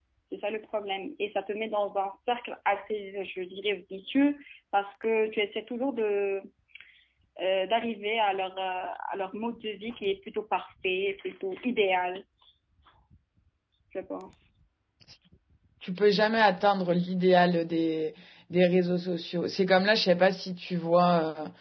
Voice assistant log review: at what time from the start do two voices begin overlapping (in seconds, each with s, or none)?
none